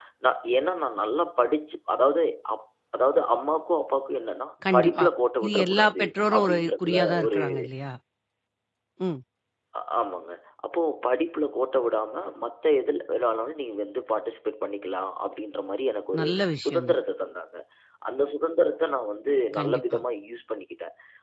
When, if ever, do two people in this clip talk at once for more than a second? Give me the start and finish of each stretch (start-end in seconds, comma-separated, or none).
5.4-7.4